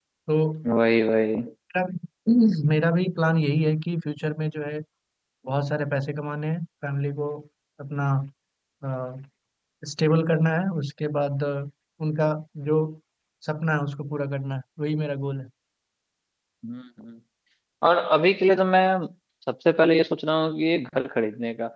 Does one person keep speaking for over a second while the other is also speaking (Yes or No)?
No